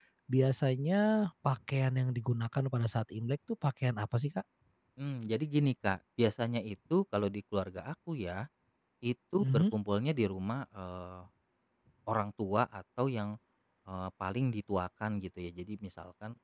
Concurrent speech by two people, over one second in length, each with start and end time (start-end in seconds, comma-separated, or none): none